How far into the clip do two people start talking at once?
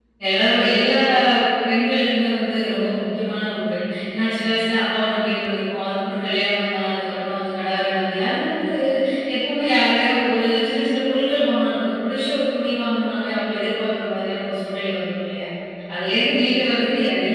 none

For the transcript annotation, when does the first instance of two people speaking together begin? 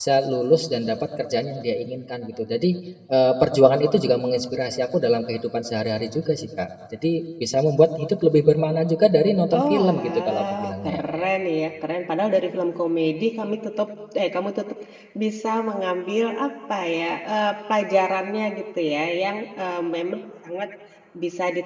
9.5 s

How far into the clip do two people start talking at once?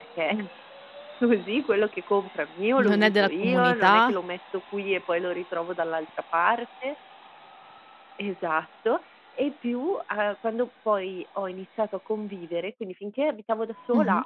2.8 s

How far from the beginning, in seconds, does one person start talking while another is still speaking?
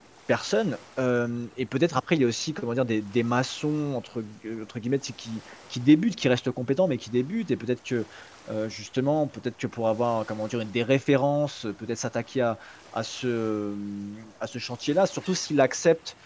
none

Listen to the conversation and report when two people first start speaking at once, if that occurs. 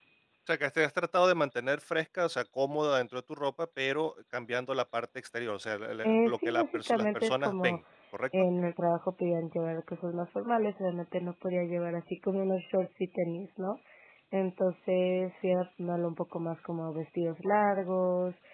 6.0 s

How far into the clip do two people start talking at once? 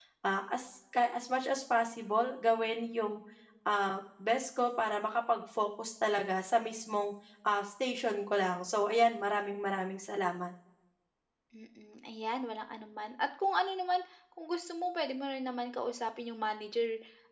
none

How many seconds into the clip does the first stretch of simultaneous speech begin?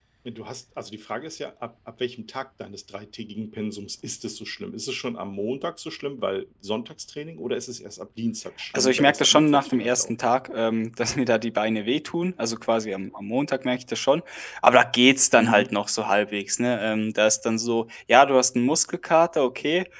8.7 s

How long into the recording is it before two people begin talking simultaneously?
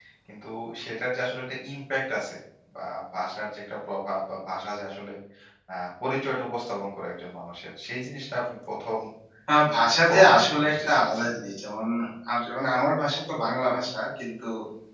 9.9 s

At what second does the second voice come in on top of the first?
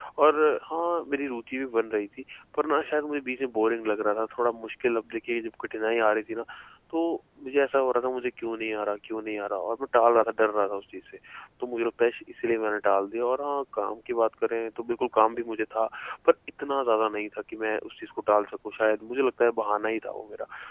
none

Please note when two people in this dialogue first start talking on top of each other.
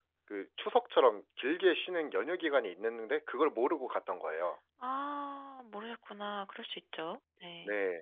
none

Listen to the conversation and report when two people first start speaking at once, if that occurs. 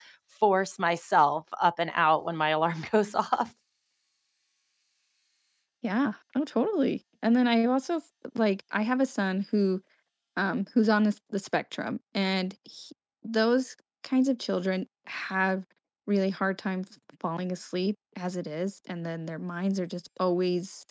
none

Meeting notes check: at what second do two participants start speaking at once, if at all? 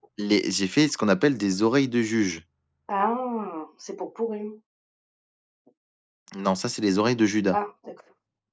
none

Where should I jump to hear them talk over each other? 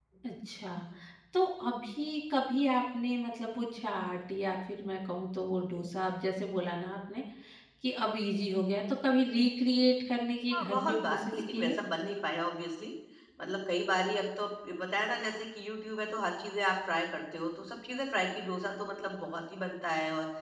10.5 s

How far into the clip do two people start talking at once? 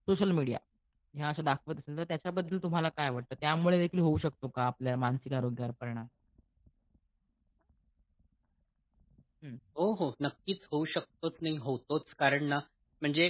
none

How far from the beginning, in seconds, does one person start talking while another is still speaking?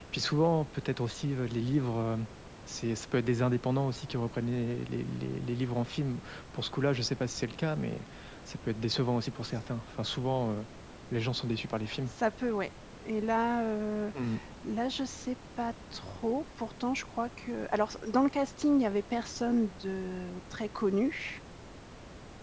none

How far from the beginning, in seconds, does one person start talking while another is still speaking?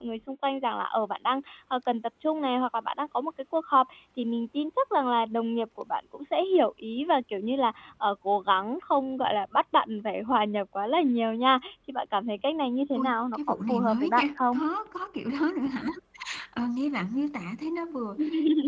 13.0 s

